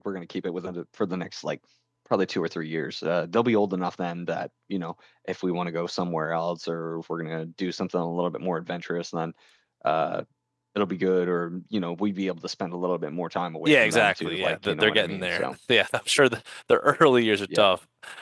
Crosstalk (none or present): present